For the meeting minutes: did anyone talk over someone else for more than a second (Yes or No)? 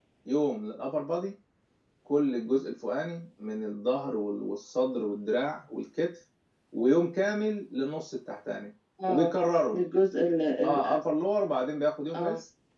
No